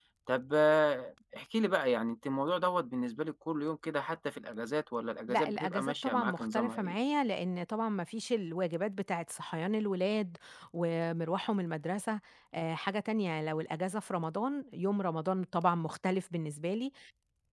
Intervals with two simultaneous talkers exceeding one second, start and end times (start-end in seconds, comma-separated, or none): 5.3-6.9